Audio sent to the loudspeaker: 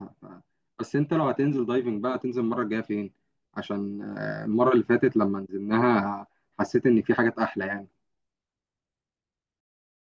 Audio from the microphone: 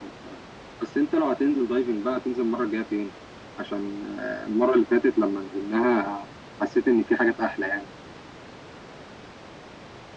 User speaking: No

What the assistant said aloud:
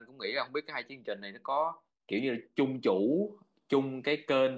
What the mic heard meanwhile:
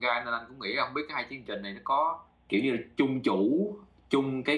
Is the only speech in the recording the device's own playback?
Yes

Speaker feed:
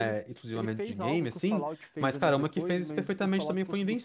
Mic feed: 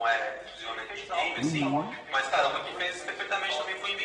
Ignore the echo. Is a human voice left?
Yes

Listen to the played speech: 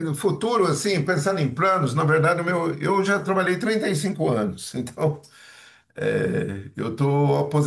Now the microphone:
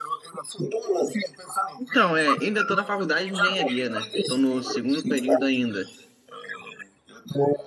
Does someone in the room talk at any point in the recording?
Yes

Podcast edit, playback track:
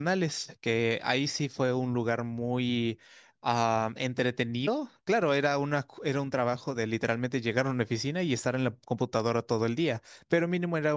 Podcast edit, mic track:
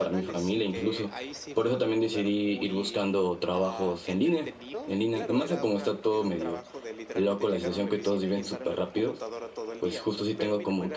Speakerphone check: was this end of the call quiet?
No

